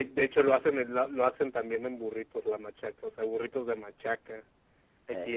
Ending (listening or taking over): listening